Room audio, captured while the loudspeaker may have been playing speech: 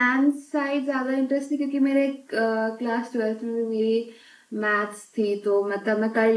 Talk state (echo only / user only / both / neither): echo only